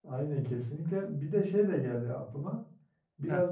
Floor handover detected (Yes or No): No